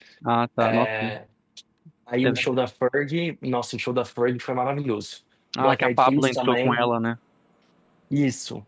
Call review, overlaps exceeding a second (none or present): present